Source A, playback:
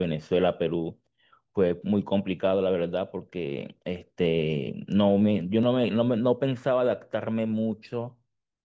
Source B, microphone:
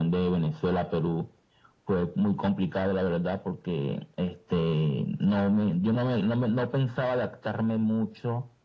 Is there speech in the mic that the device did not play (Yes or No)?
No